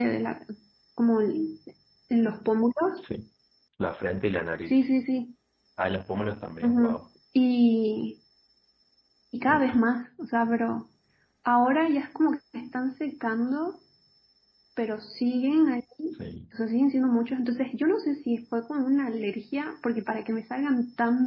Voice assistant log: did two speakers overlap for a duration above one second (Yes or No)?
No